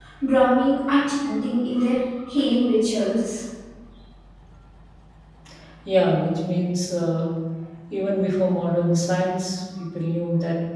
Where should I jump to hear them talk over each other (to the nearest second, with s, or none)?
none